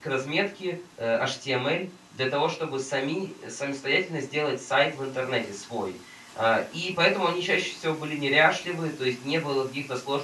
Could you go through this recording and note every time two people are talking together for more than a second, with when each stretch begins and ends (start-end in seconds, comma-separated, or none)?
none